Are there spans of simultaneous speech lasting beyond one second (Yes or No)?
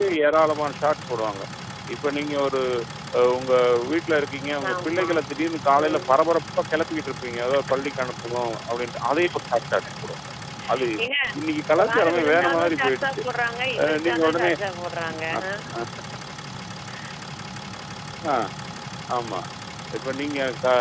Yes